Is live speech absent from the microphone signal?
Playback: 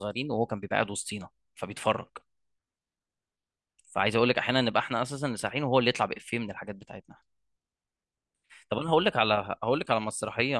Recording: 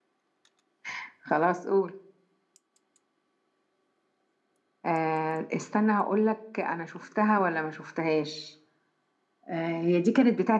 No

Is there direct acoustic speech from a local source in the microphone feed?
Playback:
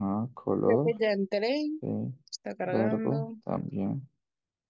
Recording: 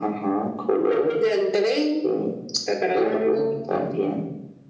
No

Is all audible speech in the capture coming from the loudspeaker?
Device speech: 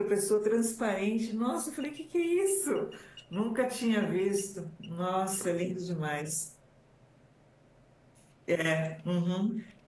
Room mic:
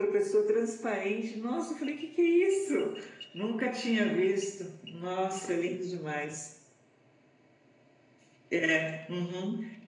Yes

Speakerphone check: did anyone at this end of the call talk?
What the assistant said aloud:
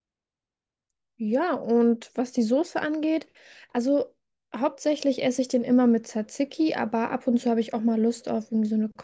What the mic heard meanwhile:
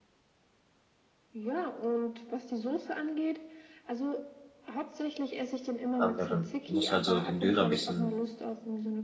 Yes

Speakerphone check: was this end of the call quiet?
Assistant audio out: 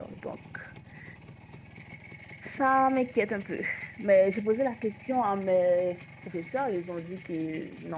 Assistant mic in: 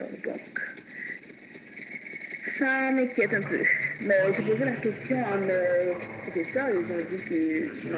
No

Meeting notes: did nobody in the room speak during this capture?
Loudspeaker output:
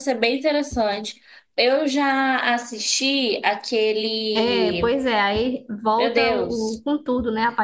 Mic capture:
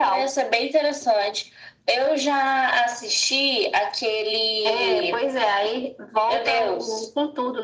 Yes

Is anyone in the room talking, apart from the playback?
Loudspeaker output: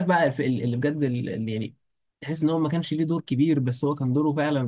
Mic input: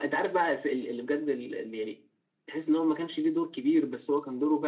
No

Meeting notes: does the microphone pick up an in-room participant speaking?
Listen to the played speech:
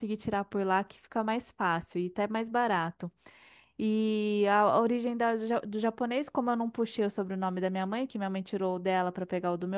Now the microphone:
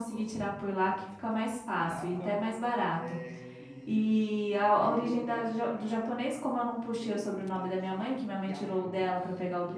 Yes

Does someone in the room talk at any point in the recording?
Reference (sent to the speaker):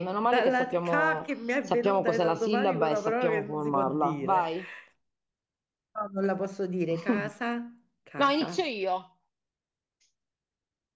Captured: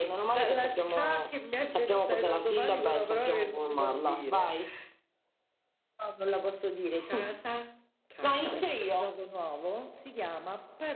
Yes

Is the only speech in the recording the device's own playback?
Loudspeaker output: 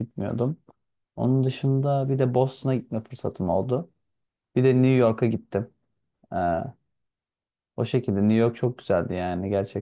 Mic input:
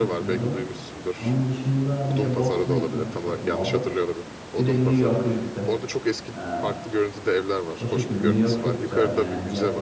No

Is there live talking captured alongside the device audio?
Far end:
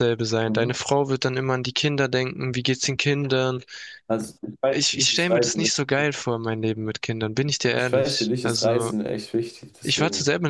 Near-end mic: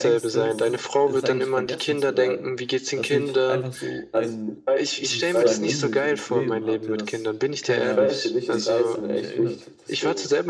Yes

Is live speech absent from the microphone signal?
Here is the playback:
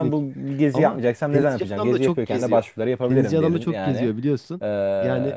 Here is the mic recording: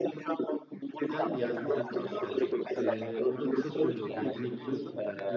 No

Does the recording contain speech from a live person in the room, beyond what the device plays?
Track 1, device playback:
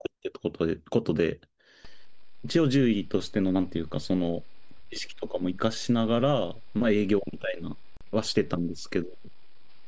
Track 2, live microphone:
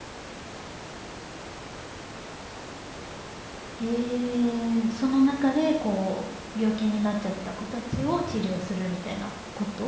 Yes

